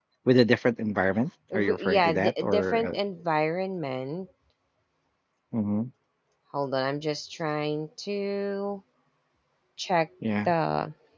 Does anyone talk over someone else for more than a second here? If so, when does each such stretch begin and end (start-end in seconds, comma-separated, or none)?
1.5-3.0